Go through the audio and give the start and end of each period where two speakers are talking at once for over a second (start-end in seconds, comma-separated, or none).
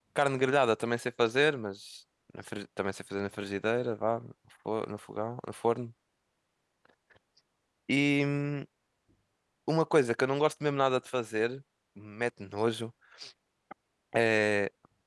none